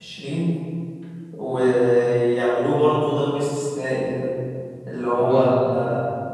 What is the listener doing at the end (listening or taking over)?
listening